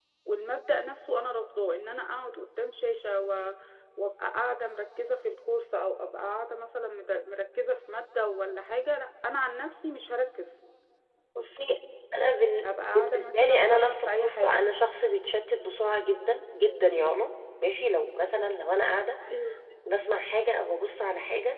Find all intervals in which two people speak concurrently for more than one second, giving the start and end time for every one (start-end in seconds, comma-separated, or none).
12.8-14.6